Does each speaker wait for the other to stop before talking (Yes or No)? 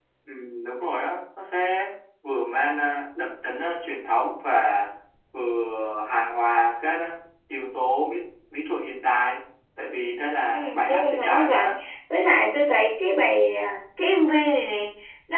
No